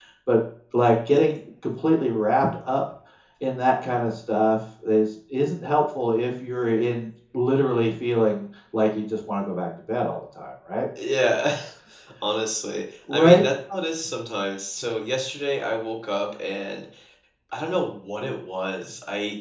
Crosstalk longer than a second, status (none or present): none